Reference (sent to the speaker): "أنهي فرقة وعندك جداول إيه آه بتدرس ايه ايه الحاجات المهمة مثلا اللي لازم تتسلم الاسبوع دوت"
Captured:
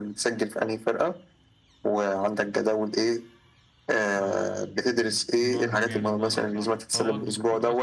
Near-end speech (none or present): present